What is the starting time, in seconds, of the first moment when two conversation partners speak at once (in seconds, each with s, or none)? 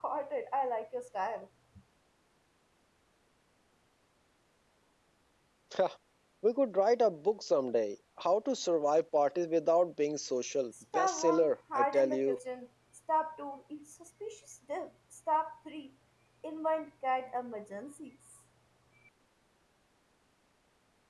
10.9 s